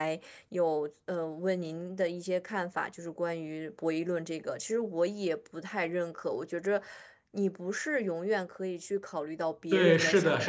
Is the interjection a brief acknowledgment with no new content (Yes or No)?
No